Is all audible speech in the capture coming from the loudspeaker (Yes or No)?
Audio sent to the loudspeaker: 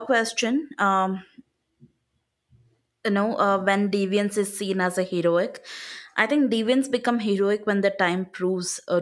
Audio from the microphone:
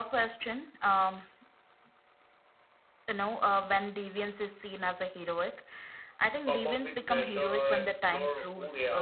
No